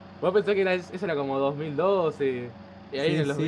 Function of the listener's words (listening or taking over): listening